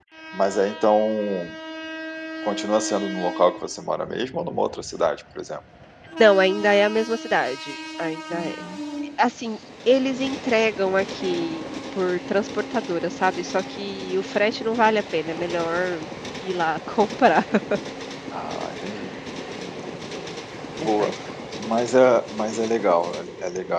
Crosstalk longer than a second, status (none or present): none